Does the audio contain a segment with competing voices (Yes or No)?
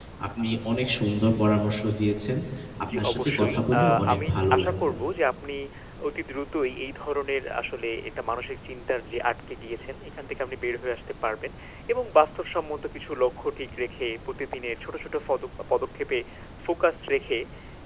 Yes